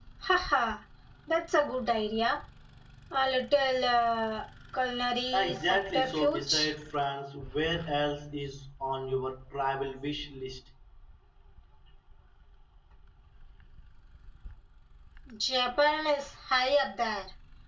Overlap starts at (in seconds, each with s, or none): 5.3 s